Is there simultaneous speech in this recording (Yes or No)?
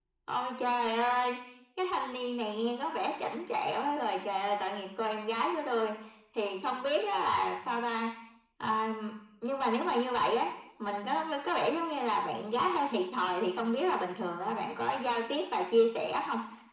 No